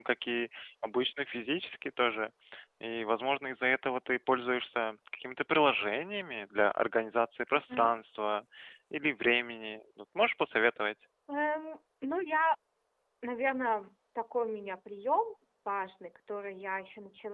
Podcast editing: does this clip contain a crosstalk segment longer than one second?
No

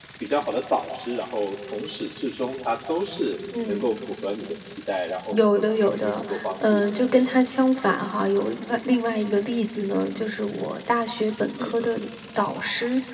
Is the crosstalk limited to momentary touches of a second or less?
No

